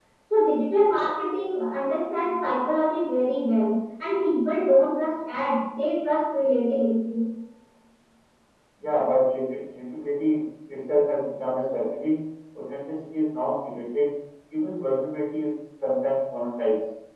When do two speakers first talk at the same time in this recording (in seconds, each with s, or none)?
none